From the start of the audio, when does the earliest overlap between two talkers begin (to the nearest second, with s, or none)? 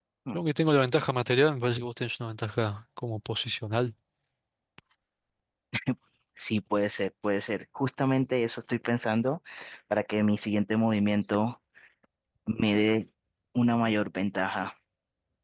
none